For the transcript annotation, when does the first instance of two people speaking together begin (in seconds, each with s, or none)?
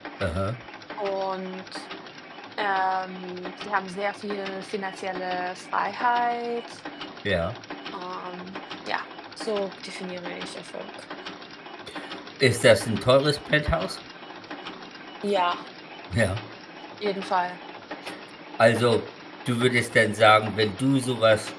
none